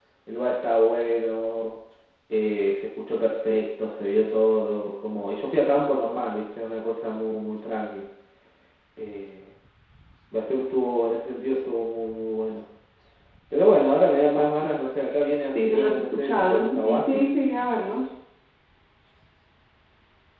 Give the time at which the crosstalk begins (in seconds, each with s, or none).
15.5 s